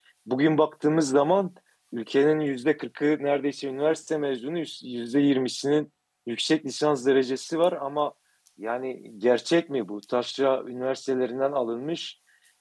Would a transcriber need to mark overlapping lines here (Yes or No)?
No